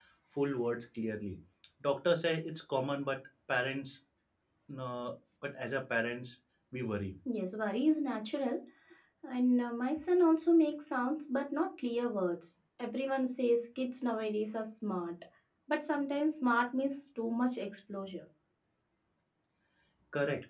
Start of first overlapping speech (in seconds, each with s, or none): none